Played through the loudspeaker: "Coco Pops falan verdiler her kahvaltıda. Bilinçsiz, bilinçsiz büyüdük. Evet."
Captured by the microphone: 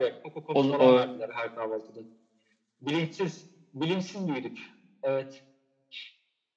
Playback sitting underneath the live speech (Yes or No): Yes